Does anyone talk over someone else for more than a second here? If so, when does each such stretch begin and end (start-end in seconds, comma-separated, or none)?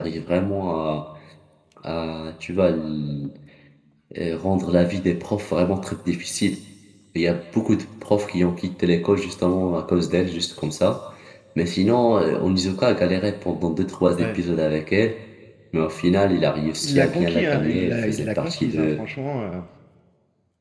16.8-19.0